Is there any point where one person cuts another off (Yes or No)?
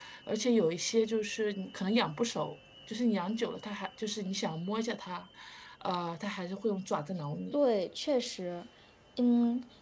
No